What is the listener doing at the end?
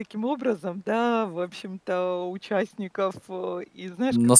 taking over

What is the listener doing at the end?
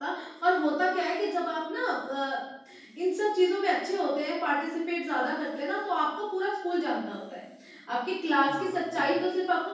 listening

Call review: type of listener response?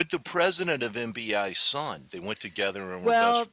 taking over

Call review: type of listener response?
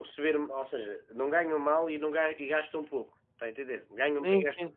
taking over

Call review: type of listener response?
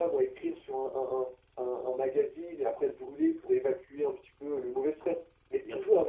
listening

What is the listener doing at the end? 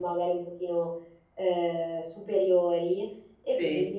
listening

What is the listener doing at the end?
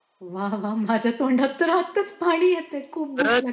taking over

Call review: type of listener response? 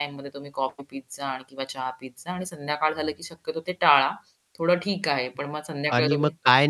taking over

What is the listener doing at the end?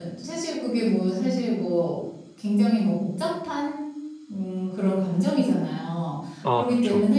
listening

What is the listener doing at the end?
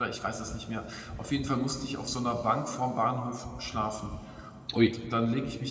listening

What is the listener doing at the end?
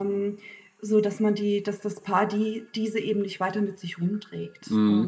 taking over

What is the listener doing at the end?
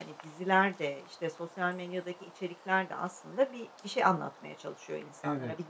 listening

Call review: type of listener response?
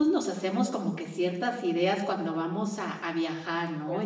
listening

